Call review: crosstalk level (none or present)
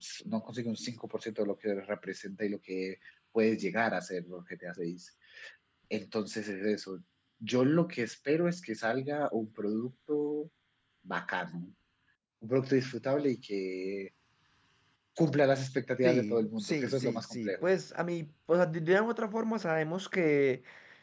present